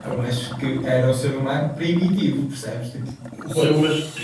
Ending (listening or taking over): taking over